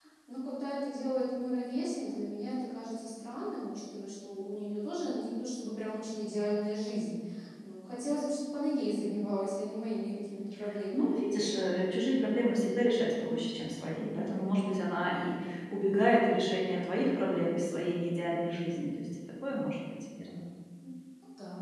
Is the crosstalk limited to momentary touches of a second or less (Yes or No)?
Yes